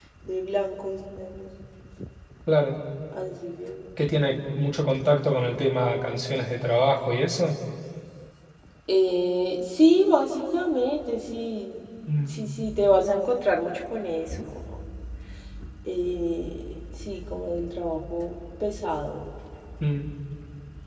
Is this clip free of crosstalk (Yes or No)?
Yes